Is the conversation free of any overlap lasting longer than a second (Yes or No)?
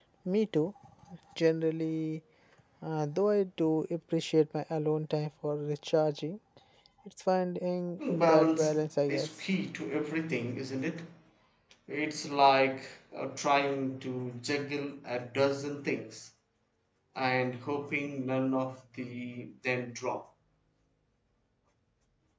No